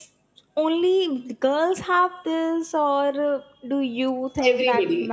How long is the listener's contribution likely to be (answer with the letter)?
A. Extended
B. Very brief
A